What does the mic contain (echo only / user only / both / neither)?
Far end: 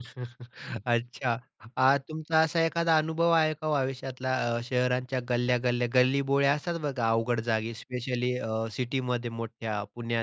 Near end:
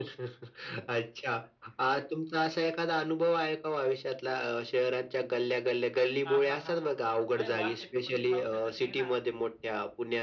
both